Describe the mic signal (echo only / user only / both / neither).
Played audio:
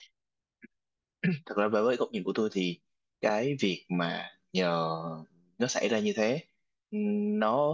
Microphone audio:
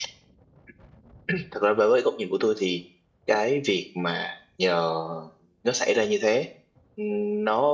echo only